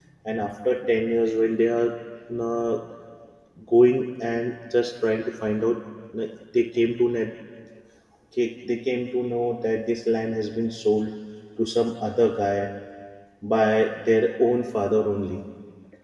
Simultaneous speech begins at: none

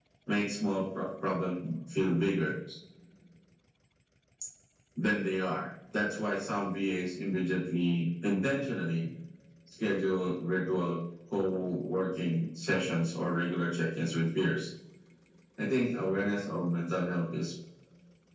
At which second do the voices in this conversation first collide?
none

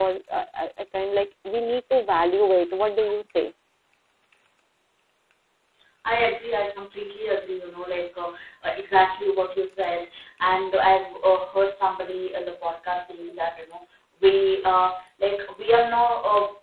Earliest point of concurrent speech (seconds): none

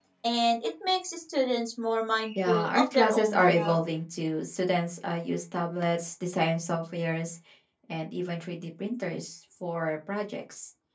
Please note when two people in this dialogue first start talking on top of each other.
2.4 s

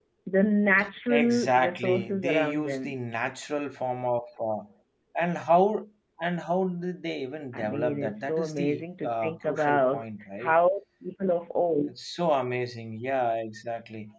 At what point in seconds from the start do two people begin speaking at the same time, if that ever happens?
1.1 s

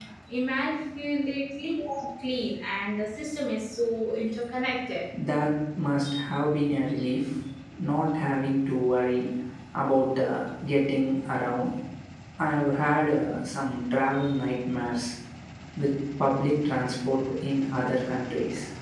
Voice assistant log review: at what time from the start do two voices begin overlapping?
none

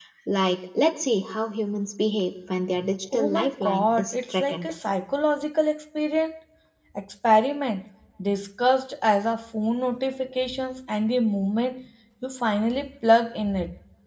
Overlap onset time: 3.1 s

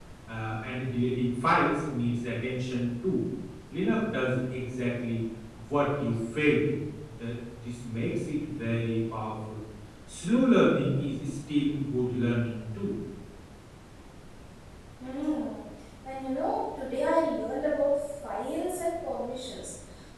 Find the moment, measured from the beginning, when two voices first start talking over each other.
none

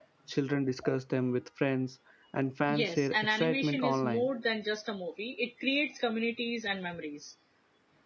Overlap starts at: 2.7 s

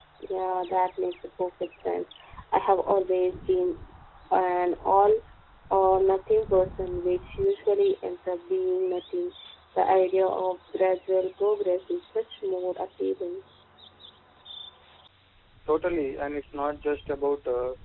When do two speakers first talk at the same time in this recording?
none

